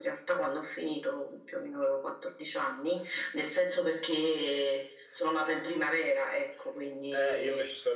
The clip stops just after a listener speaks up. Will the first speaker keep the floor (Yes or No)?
No